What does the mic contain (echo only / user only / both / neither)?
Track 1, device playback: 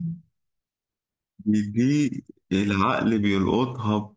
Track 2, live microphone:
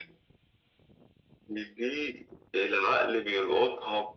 echo only